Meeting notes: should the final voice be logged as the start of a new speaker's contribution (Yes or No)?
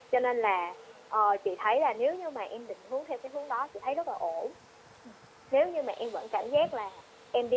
No